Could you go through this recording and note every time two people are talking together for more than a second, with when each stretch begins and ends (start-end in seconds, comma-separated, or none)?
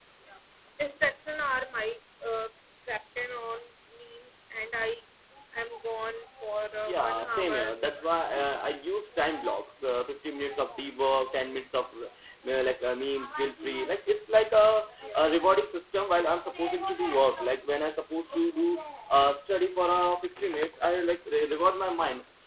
6.9-8.1